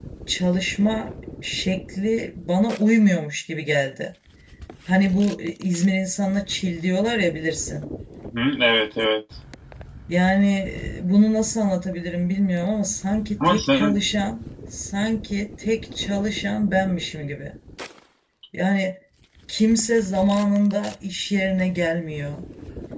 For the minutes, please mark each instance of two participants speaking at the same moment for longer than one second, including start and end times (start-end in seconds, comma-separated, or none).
none